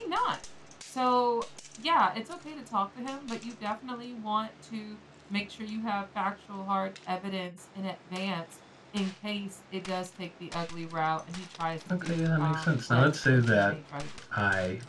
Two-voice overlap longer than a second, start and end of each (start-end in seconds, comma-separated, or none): 12.0-13.8